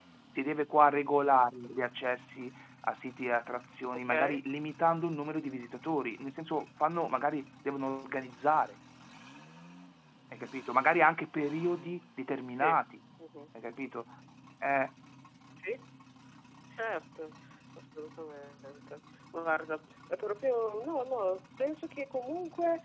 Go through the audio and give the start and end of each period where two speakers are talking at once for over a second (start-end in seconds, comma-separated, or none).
none